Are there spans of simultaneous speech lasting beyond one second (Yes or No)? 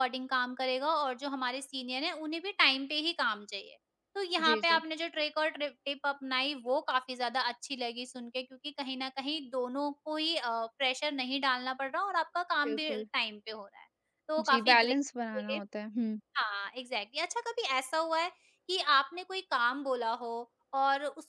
No